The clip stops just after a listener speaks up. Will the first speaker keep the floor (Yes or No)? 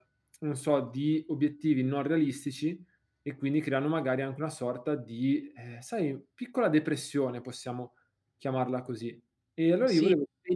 No